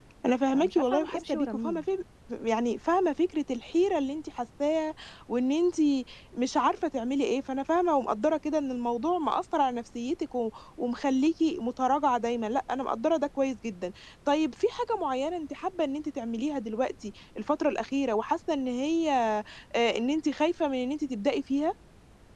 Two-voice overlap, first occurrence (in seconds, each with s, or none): 0.5 s